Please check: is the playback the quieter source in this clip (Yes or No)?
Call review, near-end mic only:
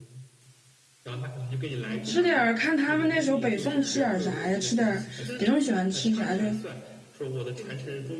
Yes